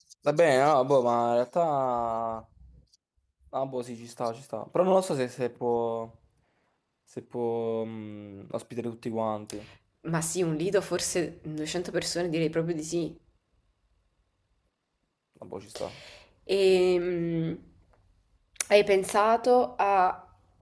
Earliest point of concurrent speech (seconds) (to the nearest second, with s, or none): none